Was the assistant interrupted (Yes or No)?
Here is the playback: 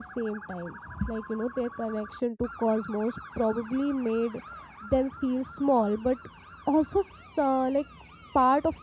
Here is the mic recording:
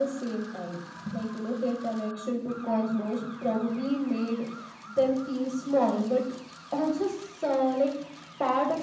No